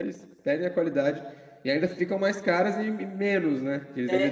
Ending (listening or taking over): taking over